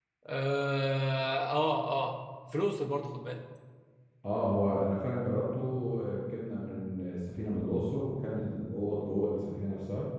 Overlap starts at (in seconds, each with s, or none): none